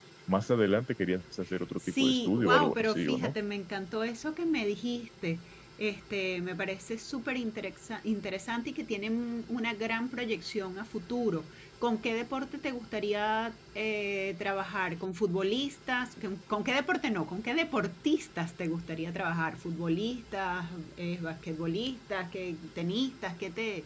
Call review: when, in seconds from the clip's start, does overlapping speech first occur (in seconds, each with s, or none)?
1.6 s